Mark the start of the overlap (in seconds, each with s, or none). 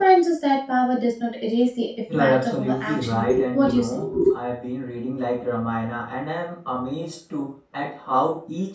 2.1 s